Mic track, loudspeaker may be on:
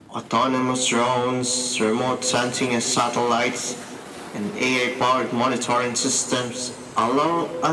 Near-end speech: none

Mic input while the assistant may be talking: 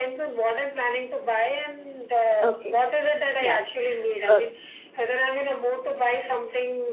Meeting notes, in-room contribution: present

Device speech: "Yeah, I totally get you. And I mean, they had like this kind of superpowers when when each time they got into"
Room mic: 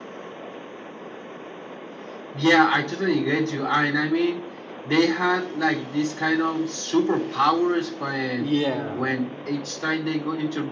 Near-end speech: present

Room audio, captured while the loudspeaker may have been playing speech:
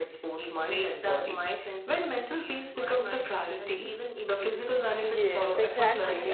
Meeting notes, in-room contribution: present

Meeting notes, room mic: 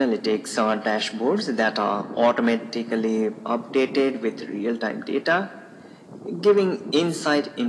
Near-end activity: none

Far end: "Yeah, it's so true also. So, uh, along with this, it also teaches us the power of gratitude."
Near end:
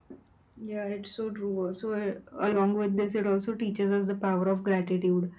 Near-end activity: none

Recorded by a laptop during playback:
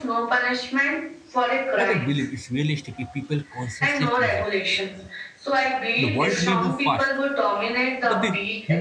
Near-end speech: present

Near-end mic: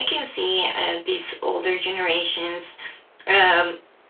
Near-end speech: none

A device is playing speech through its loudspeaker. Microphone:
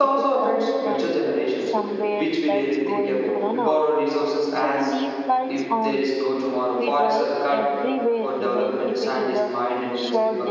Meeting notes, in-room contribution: present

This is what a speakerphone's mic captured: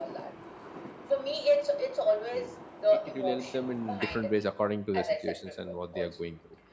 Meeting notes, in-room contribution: present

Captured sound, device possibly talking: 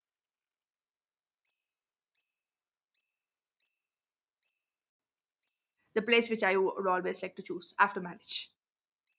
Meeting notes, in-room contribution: present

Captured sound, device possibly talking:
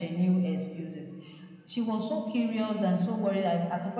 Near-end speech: none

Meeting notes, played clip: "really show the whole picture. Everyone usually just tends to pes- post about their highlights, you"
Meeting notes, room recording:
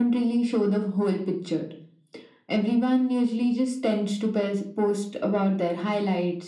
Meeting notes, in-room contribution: none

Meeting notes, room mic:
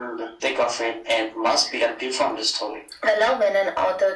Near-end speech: none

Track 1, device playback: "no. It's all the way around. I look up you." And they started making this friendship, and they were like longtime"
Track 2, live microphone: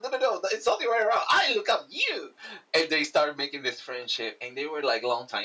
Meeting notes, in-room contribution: none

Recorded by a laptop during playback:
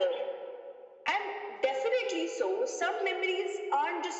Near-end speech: none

